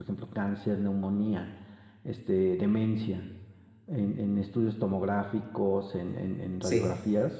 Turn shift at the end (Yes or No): No